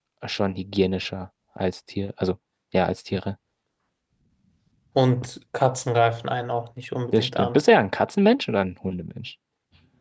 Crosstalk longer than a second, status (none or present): none